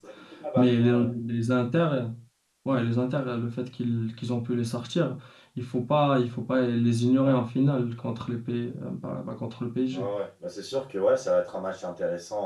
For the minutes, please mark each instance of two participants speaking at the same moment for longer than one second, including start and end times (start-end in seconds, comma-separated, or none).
none